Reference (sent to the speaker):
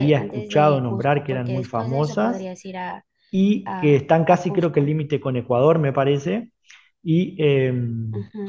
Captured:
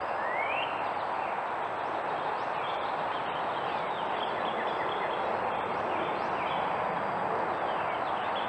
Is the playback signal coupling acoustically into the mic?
No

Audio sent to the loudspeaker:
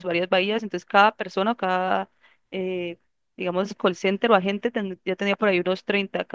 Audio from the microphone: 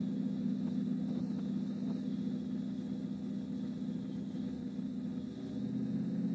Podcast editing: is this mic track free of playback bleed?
Yes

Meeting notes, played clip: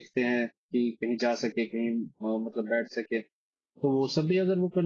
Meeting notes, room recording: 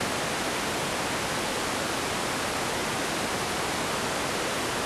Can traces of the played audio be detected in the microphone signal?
No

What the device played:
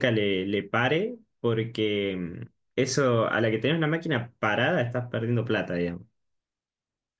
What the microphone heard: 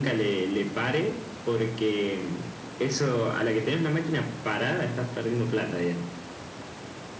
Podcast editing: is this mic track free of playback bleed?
No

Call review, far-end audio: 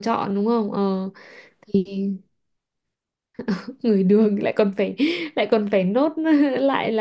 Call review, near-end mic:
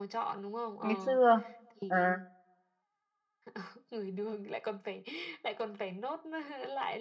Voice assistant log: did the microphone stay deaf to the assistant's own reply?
No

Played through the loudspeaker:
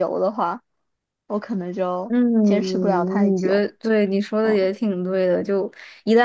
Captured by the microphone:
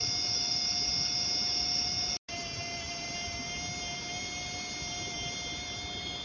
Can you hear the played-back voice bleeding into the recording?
No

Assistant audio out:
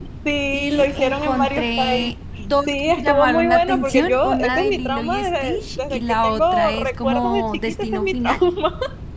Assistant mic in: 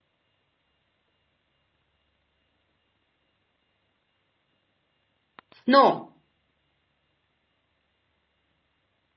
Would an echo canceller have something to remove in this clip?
No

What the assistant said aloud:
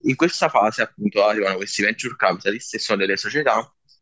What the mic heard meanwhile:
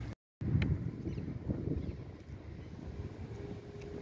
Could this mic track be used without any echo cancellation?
Yes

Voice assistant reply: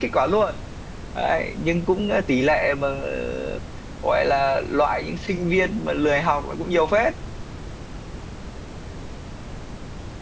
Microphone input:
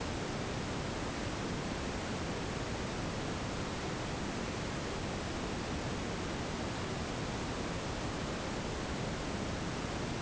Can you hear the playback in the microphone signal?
No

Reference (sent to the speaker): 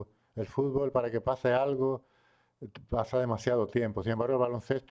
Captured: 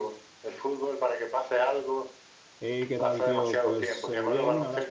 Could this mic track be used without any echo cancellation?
No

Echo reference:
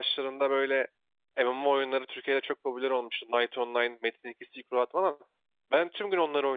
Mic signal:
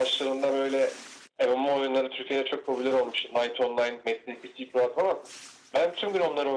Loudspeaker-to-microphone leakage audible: Yes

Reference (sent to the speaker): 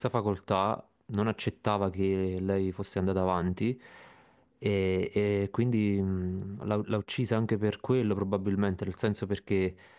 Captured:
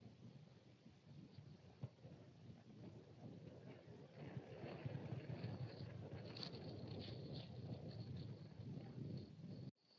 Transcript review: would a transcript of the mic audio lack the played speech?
Yes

